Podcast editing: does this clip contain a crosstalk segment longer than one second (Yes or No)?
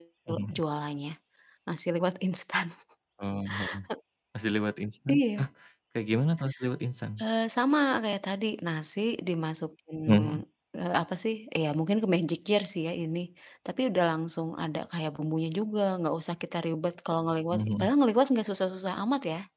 No